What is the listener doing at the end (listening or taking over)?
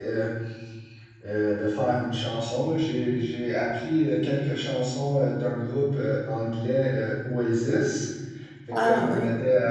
listening